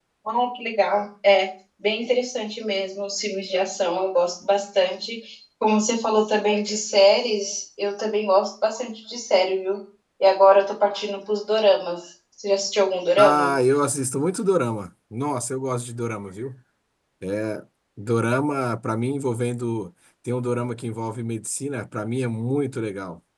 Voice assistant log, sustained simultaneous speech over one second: none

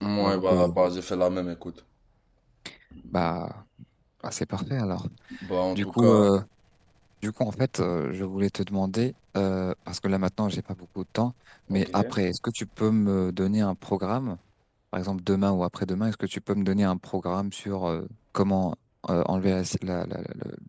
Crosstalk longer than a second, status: none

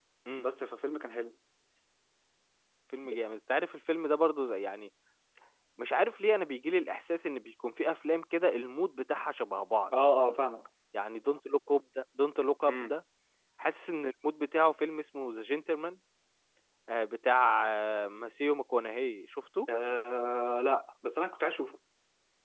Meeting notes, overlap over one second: none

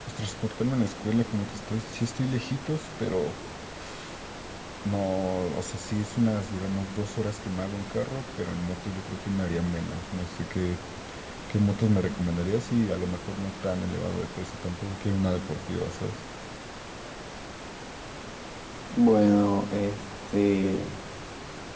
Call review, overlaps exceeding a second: none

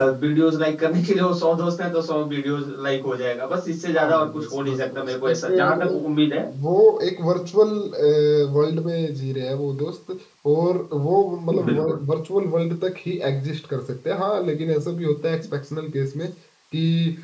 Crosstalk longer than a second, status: present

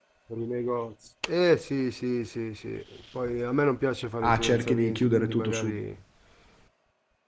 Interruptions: present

